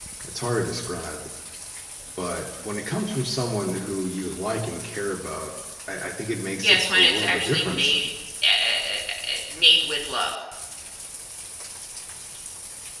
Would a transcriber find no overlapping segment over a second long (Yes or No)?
No